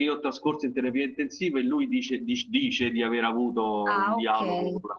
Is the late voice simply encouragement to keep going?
No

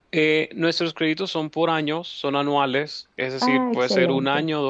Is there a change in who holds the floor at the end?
No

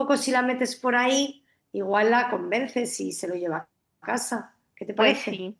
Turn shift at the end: Yes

